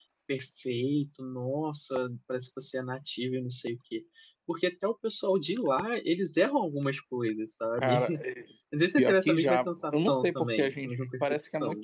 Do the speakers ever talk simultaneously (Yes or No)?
Yes